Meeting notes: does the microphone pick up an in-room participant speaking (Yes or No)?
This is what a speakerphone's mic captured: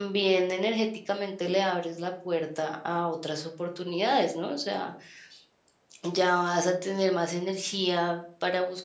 Yes